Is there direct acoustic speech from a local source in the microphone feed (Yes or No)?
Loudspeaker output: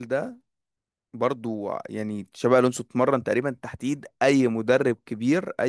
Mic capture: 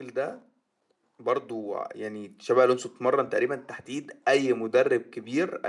No